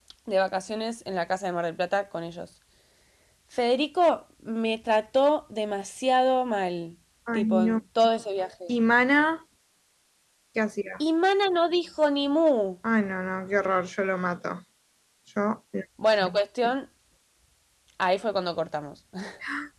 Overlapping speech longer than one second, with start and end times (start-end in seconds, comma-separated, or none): none